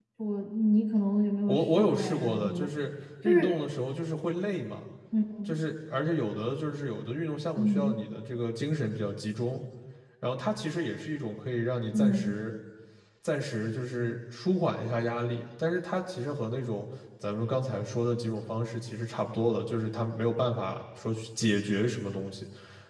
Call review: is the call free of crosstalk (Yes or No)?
No